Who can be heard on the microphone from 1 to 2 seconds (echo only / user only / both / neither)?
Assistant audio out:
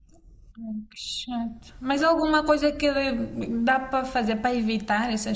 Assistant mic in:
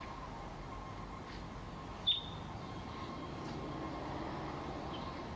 neither